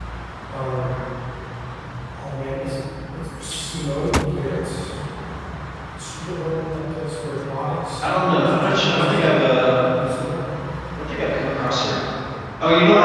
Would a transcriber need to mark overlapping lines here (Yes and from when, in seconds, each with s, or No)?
Yes, from 8.0 s